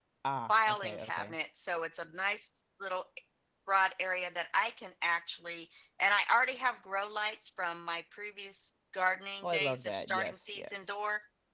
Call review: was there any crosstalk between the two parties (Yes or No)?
Yes